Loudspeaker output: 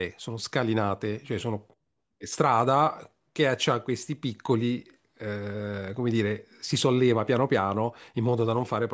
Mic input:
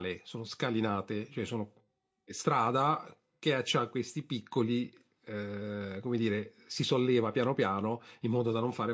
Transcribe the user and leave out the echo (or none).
none